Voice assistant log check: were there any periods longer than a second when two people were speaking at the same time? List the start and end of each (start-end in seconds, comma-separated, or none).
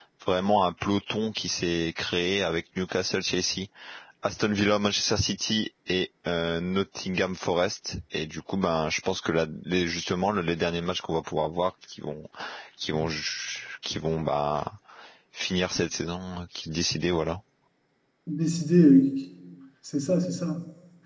none